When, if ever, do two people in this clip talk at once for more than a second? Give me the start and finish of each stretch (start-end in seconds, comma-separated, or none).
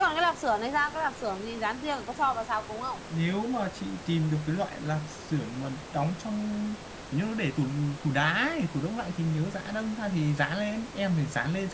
none